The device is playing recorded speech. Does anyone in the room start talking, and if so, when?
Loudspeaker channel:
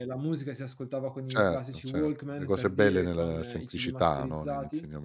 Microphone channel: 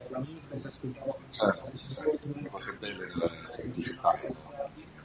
none

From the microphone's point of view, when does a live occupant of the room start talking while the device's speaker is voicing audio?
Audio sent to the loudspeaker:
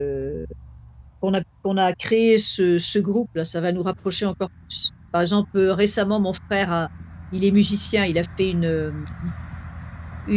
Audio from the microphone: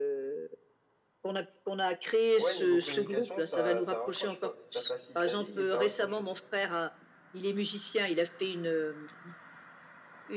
2.4 s

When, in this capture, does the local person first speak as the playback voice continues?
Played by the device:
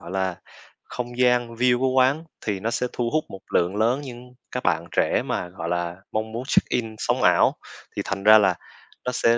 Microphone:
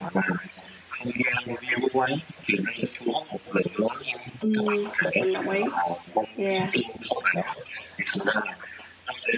4.4 s

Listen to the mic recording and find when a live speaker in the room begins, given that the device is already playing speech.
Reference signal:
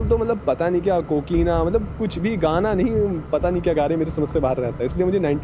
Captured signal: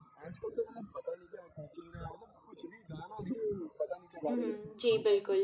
4.3 s

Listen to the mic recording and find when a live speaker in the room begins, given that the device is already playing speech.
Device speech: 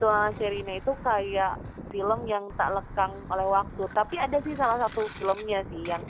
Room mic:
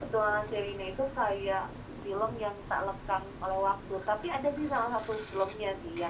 none

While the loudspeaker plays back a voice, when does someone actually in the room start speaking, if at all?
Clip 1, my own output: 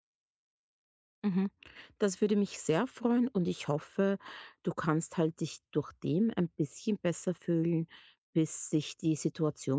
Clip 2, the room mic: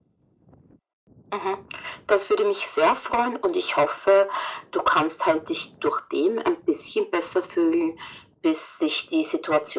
none

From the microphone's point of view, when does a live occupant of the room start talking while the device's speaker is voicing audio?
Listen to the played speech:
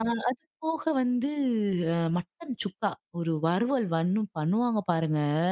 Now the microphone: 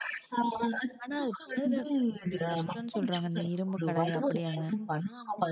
1.0 s

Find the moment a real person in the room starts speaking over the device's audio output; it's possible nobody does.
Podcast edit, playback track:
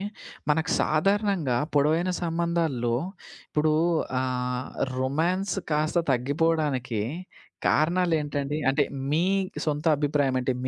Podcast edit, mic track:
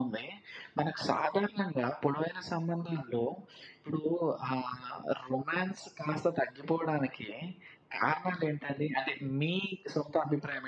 none

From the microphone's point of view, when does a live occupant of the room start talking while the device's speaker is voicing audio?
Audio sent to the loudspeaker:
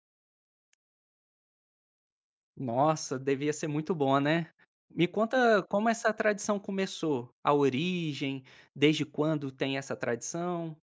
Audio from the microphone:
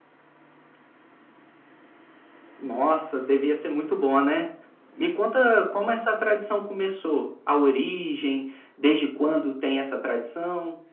none

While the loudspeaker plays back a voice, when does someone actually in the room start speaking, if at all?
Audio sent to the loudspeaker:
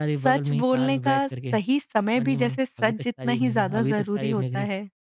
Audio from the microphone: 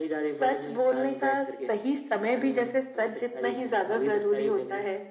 none

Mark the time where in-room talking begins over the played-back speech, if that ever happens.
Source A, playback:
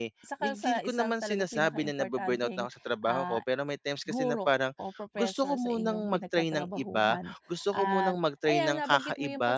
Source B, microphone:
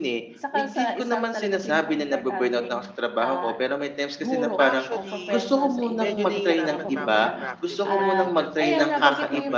4.6 s

